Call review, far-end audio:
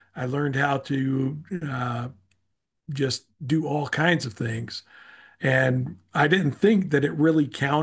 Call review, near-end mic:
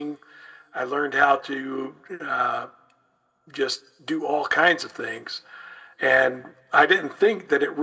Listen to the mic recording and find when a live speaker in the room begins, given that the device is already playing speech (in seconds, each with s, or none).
none